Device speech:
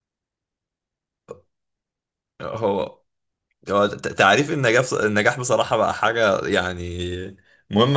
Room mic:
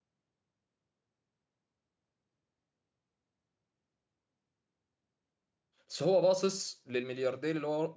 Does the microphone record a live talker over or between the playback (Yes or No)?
Yes